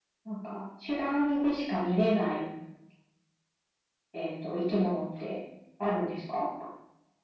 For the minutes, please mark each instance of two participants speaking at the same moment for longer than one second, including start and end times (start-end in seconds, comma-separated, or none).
none